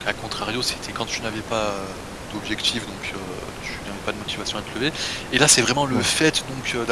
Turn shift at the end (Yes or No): No